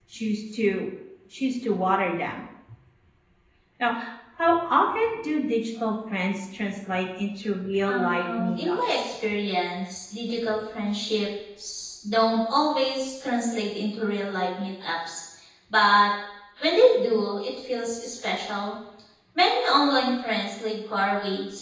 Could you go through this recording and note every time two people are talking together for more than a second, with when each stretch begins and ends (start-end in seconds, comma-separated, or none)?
7.9-9.1